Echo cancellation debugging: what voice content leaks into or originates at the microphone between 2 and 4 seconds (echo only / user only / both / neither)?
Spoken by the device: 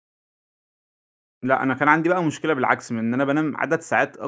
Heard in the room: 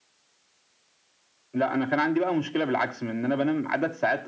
echo only